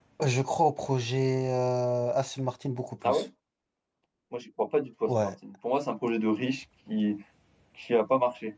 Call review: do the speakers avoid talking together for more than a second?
Yes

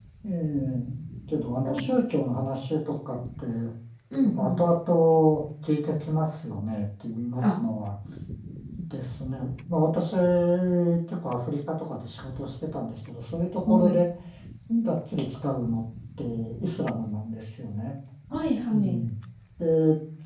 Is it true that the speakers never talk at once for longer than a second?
Yes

